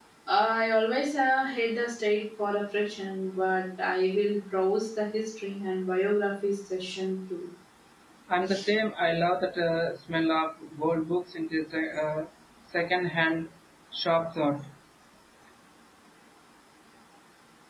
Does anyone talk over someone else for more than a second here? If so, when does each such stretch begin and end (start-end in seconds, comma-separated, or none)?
none